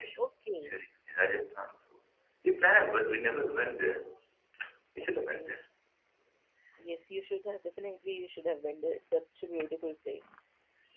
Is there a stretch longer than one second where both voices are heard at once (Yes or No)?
No